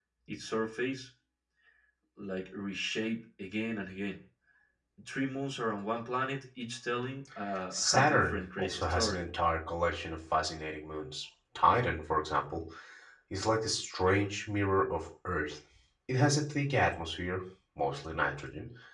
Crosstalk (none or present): present